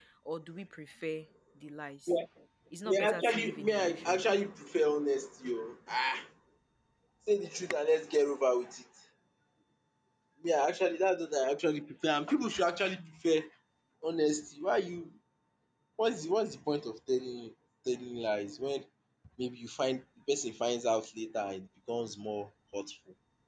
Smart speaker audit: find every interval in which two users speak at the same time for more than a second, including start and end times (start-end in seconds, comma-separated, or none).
2.8-4.2